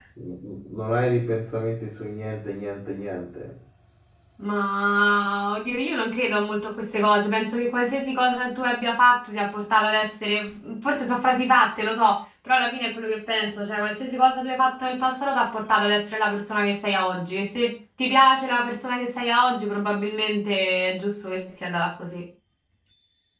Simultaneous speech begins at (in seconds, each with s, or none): none